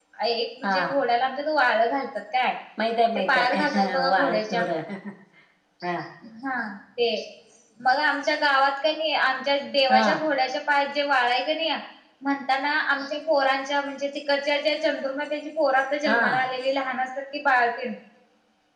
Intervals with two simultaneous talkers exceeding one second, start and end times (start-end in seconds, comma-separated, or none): 3.3-4.6